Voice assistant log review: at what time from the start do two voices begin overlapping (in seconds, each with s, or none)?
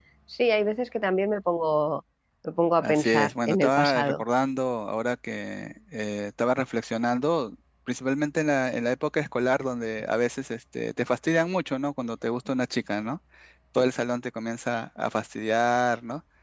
2.8 s